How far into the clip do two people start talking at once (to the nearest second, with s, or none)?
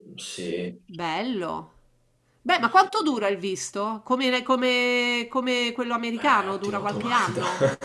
6 s